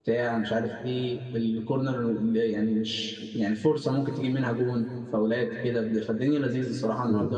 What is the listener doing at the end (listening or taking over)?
taking over